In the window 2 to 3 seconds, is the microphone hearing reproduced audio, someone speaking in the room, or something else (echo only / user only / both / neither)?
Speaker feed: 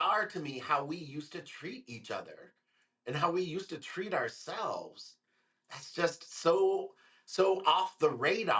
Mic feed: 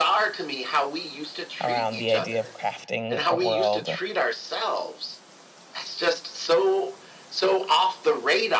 both